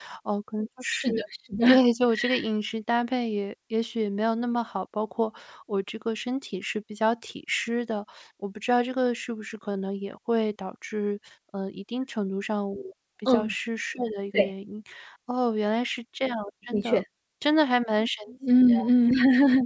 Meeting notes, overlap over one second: none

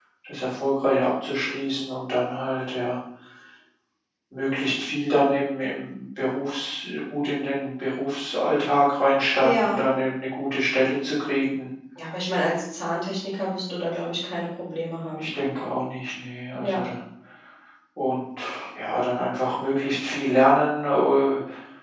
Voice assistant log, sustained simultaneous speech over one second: none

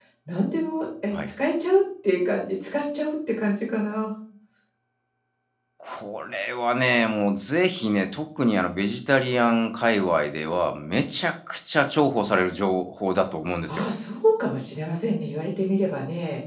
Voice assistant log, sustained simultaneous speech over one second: none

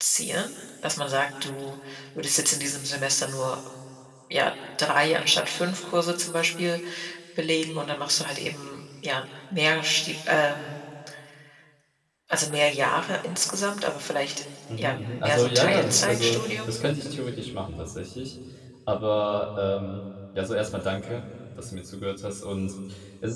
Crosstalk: present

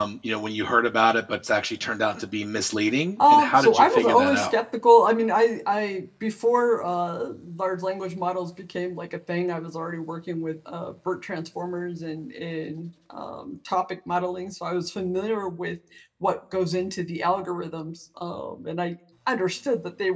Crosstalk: present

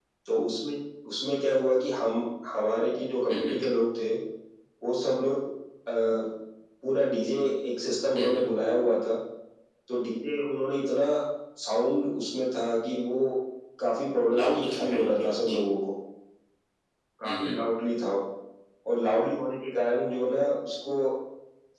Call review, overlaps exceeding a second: present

